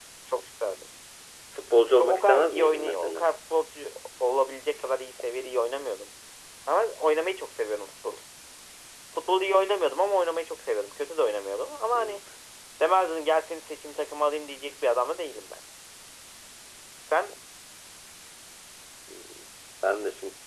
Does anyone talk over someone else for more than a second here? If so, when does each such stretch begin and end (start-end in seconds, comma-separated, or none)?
2.0-3.2